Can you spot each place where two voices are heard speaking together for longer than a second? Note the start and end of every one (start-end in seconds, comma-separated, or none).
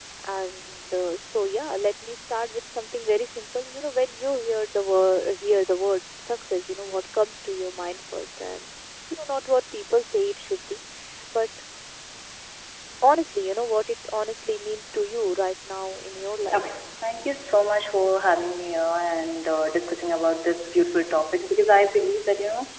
none